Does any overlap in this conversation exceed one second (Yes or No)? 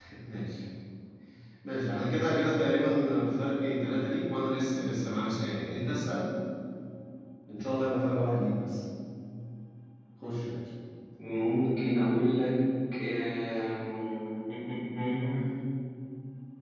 No